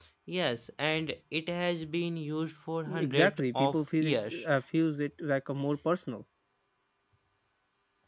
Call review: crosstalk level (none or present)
present